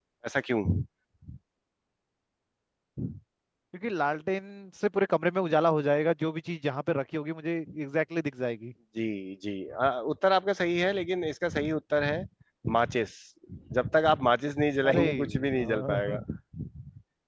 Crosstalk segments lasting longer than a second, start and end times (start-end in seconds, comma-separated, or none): 14.8-16.2